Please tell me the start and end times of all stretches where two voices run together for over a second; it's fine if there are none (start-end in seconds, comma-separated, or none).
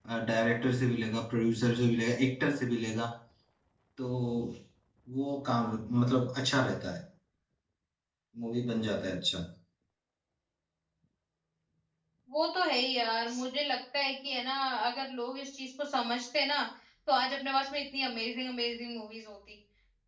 none